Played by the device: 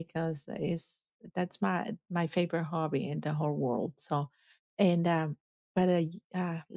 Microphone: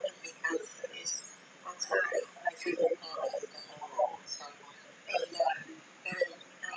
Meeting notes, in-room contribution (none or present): none